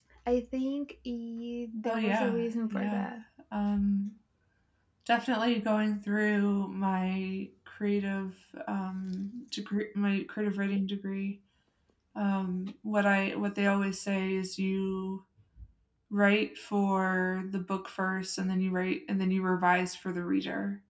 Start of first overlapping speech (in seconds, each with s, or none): 1.8 s